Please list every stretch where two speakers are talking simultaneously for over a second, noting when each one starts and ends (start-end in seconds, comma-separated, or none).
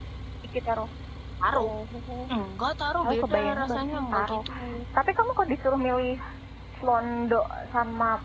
3.0-4.3